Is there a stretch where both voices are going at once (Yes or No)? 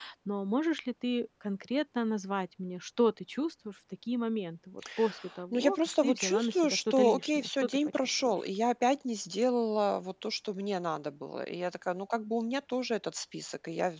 Yes